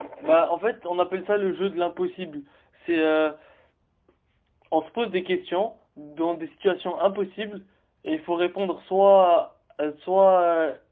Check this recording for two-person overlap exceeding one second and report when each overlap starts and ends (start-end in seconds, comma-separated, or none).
none